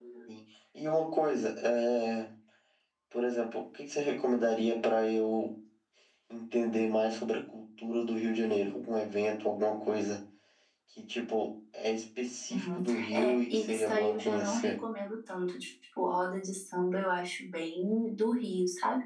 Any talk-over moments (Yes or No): Yes